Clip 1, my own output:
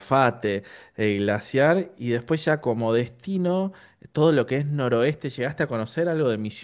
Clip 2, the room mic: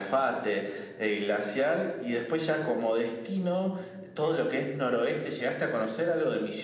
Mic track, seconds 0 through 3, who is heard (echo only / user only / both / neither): echo only